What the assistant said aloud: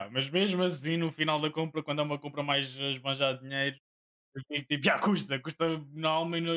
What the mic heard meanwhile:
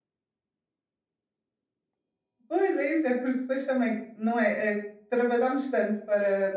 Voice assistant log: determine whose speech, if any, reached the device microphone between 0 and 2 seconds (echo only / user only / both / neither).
neither